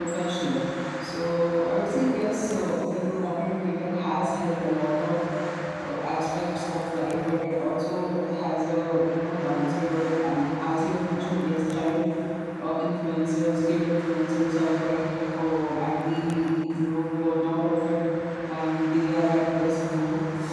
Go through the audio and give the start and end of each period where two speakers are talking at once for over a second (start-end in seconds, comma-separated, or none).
none